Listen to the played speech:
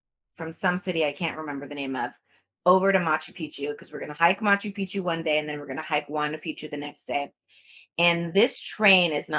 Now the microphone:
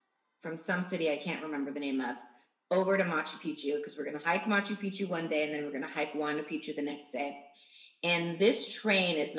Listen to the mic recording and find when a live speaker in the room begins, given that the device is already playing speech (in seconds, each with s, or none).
none